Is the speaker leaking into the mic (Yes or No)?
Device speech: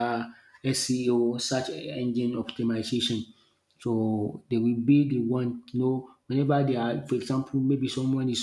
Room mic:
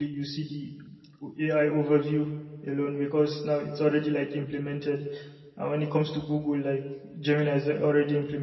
No